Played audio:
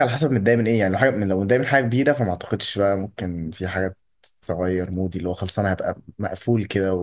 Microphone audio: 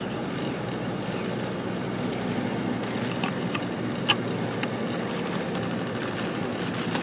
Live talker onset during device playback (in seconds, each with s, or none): none